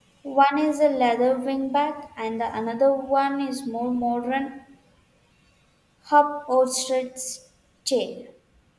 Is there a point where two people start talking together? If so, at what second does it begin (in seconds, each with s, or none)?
none